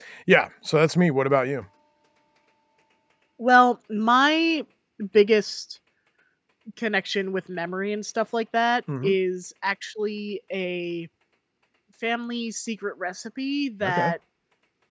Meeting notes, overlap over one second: none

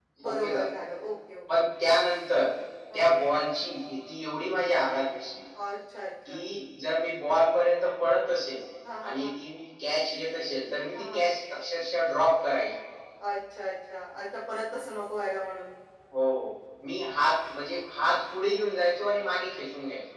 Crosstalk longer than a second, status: none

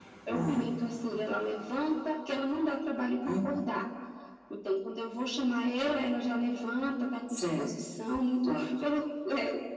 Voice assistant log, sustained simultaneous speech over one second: none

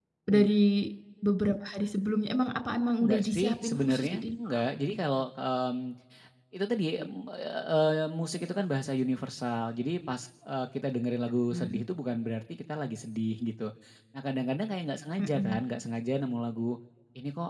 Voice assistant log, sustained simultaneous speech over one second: present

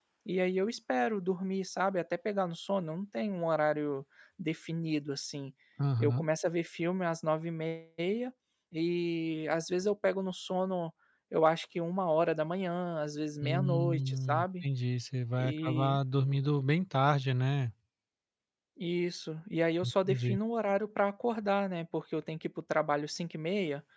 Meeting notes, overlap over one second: present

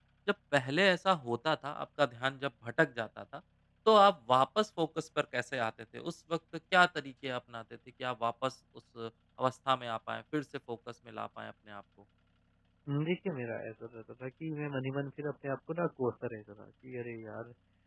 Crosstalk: none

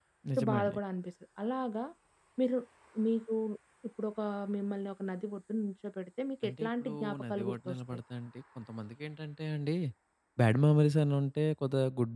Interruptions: present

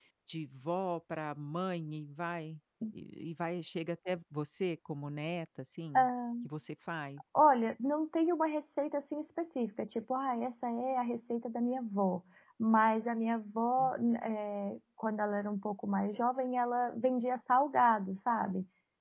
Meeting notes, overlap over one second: none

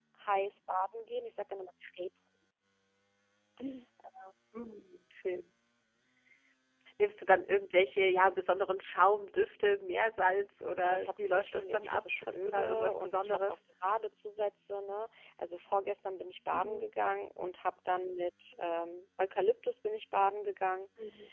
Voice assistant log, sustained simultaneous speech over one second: present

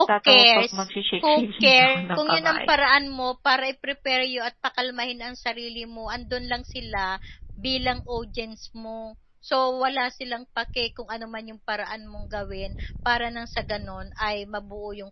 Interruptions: present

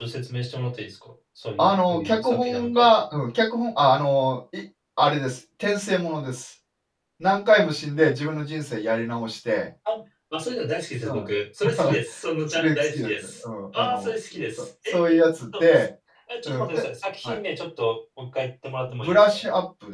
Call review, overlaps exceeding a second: present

